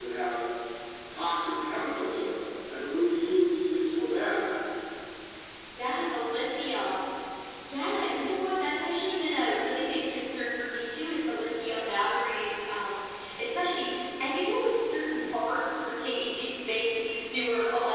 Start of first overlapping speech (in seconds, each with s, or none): none